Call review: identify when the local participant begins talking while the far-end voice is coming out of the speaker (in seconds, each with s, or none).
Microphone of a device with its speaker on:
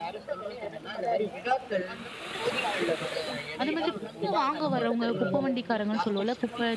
3.6 s